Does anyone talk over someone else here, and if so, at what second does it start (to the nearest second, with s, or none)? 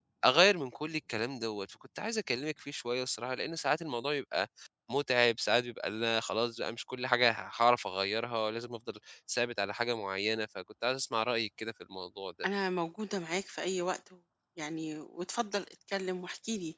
none